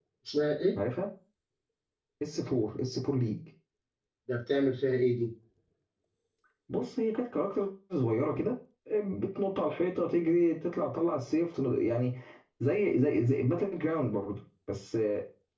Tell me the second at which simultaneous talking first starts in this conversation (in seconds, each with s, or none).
none